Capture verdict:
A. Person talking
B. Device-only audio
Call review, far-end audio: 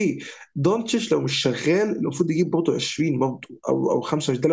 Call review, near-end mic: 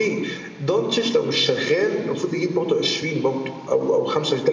B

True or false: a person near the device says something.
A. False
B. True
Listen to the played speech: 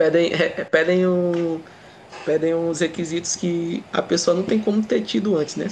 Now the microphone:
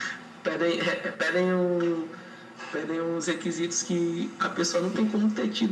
A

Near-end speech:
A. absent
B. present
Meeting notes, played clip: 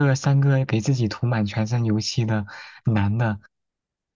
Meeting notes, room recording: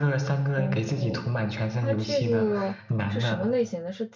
B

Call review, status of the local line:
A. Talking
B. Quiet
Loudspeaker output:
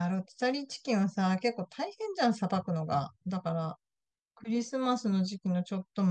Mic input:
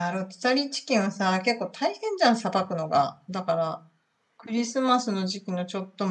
B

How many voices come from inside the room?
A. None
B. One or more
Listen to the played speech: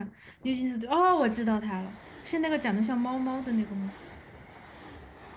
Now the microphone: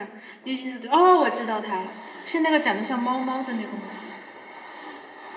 A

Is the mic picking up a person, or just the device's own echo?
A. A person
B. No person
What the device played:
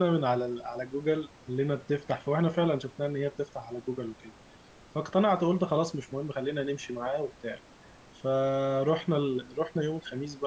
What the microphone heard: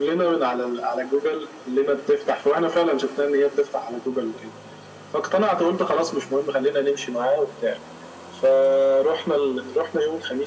B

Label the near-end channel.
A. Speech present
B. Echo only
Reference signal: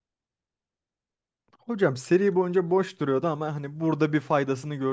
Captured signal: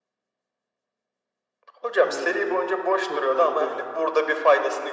A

